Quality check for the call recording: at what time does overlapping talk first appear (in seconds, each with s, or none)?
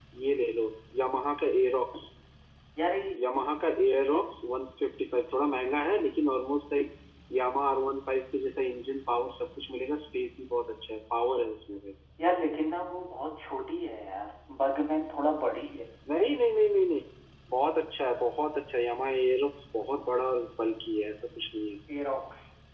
none